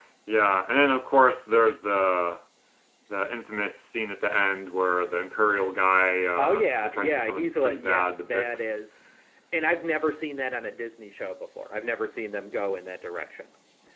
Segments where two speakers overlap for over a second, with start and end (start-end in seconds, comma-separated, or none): 6.4-8.8